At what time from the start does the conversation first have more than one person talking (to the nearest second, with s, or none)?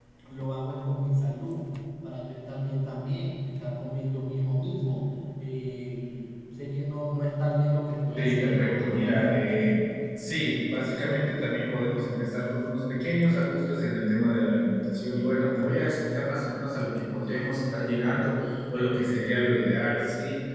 8 s